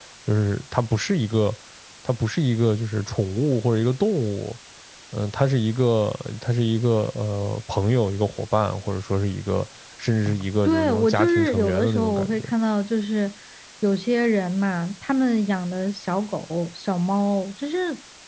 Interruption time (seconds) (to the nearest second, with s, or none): 11 s